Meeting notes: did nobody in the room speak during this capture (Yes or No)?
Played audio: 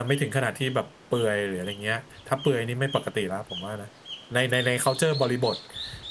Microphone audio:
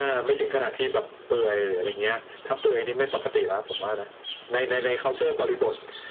Yes